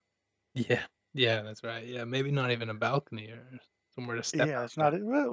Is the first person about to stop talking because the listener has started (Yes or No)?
Yes